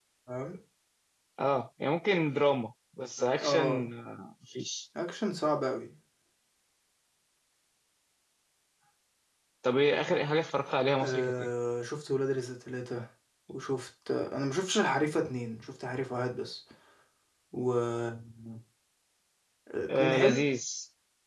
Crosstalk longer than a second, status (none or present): none